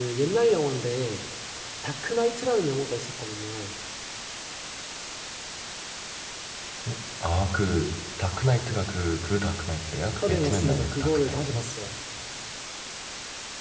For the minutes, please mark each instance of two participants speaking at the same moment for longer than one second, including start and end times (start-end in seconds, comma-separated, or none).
10.3-11.6